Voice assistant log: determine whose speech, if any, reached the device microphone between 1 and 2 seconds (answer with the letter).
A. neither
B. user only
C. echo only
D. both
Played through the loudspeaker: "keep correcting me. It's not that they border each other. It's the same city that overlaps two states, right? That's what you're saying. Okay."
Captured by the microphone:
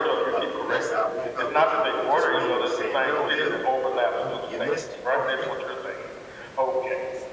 D